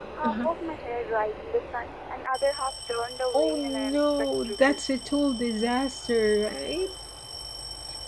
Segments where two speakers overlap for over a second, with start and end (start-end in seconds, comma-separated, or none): 3.3-5.1